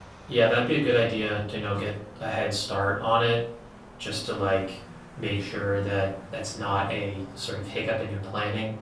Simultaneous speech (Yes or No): No